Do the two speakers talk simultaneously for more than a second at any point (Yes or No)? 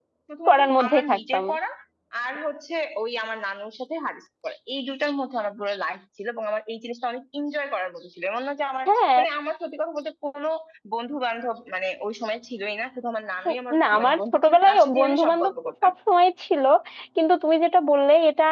Yes